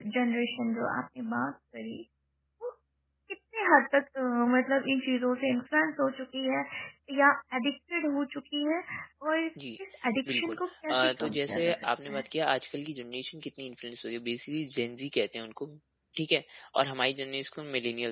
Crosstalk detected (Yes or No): Yes